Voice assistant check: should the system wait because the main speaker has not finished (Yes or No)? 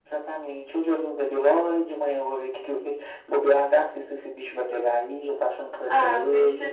No